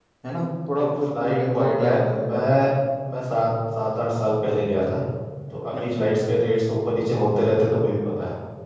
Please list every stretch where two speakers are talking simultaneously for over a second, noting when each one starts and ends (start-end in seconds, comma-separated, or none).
0.8-2.5